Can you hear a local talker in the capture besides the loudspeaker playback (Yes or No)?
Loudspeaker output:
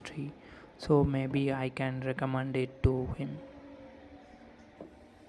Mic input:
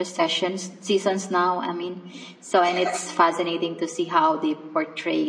Yes